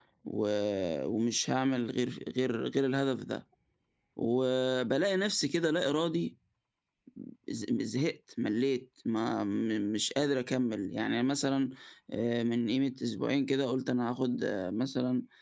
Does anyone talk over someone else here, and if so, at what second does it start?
none

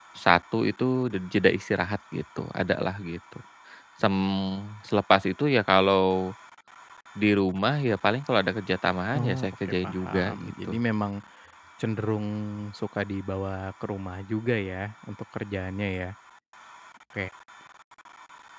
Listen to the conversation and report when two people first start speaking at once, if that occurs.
9.1 s

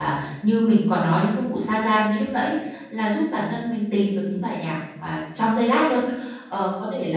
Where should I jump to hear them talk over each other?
none

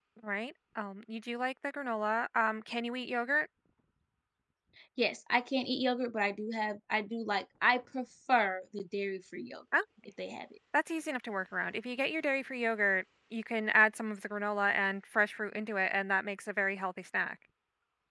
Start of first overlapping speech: none

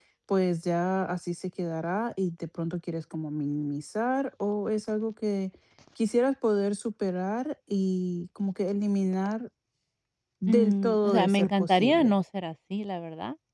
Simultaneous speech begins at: 10.5 s

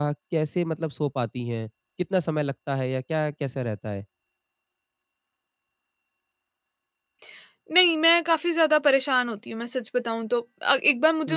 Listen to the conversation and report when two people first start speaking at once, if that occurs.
none

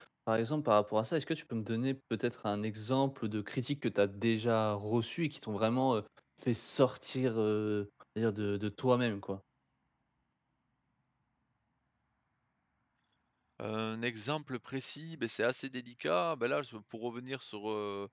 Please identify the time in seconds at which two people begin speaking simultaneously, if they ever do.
none

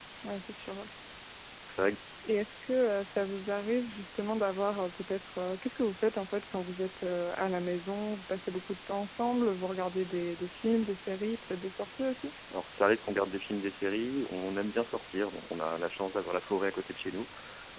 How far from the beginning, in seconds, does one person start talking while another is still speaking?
none

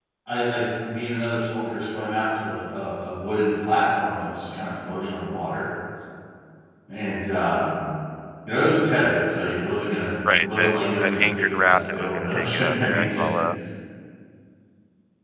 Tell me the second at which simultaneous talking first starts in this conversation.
10.2 s

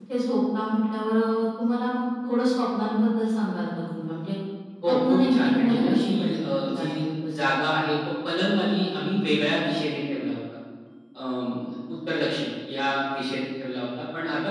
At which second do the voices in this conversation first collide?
4.8 s

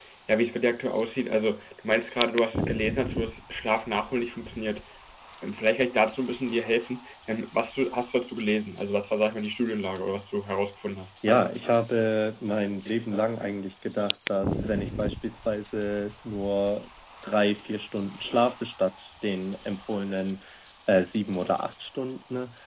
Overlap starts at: none

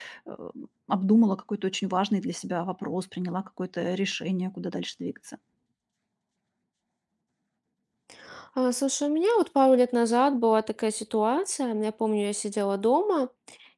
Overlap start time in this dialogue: none

